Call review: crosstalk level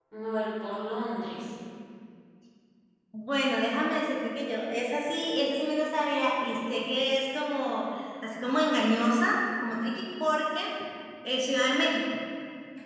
none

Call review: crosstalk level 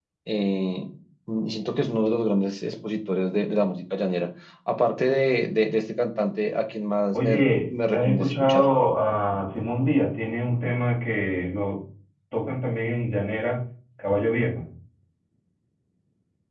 present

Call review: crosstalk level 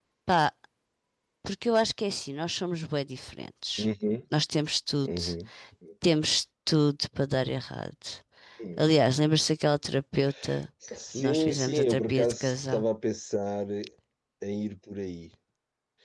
present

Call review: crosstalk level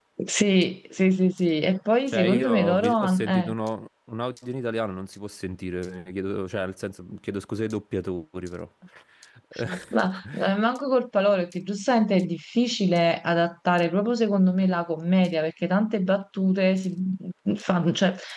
present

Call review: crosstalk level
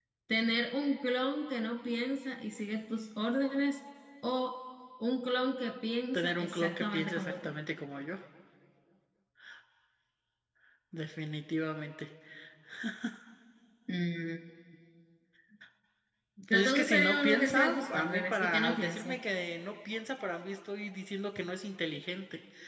present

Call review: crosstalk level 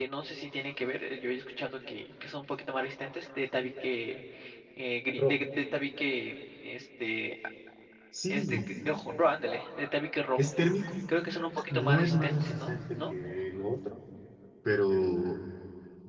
present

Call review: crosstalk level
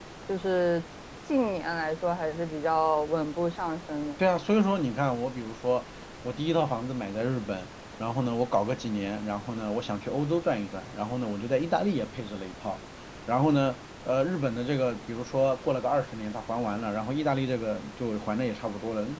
none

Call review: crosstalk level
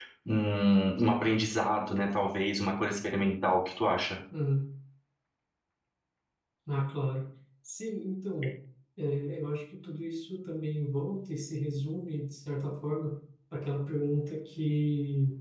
none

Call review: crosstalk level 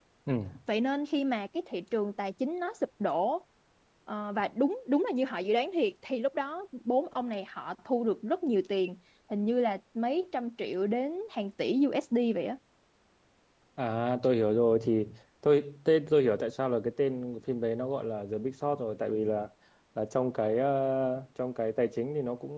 none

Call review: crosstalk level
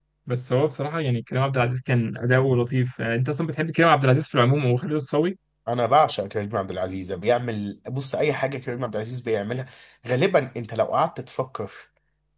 none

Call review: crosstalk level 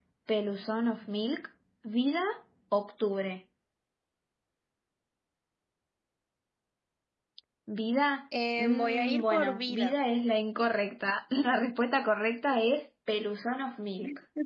present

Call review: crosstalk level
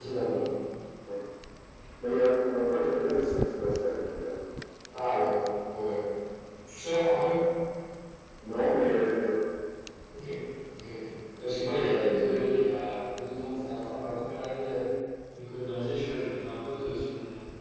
none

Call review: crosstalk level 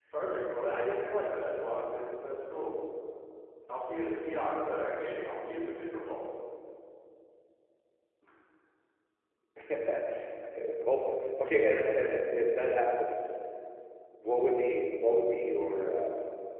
none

